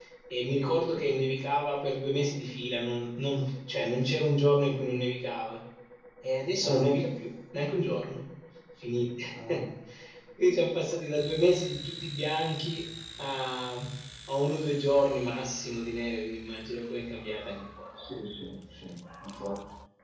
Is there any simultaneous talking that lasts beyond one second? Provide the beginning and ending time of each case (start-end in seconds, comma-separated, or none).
none